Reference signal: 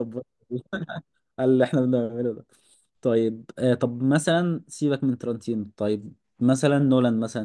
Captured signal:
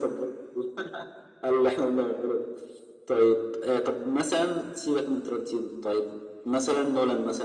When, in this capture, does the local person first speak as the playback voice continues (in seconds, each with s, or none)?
none